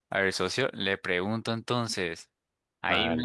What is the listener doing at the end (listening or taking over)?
listening